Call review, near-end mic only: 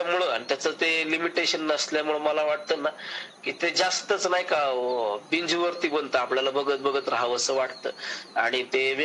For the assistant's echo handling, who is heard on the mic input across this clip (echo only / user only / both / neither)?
echo only